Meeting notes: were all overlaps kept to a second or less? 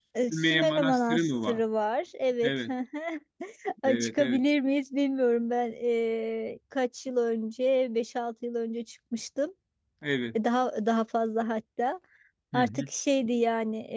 No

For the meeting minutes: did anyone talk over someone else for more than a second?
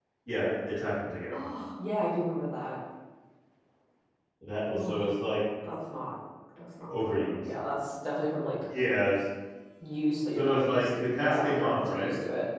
Yes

